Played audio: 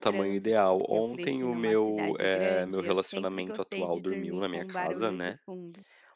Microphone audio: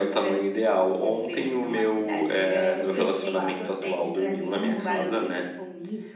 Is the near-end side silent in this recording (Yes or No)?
No